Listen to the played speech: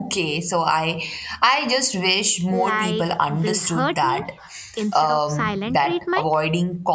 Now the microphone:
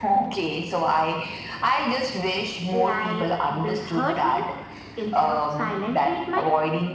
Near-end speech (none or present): none